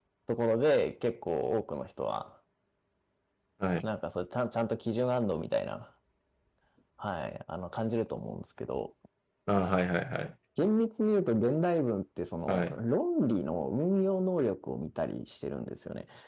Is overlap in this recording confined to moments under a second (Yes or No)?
Yes